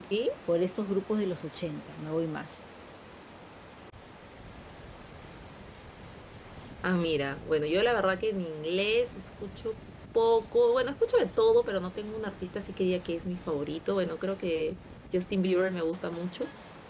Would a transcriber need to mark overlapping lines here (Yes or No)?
No